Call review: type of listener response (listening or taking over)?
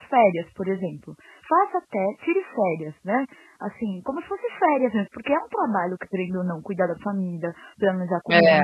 listening